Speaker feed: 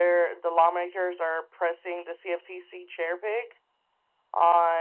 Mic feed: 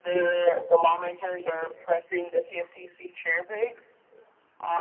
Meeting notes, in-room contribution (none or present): none